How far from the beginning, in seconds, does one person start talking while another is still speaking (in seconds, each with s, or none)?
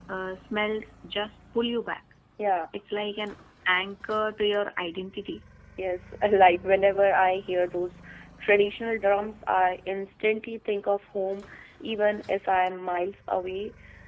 none